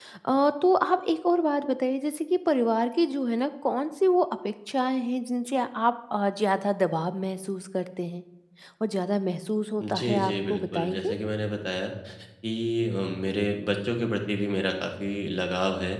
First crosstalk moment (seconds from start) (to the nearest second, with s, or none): 10 s